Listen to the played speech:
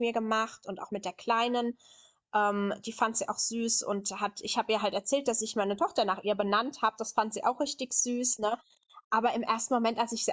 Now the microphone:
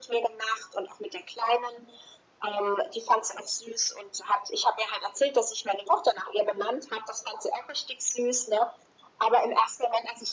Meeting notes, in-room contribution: none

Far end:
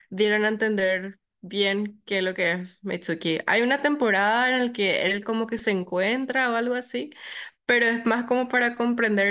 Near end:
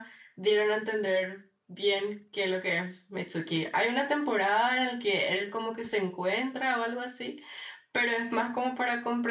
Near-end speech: none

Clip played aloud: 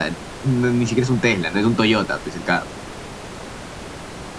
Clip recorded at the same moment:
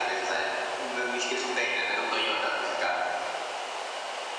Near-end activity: none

